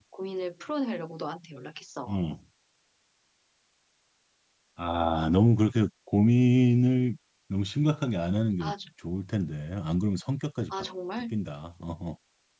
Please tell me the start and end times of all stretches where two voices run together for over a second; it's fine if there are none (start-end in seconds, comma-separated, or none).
none